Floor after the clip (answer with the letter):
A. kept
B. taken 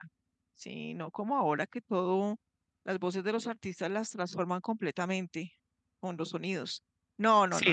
B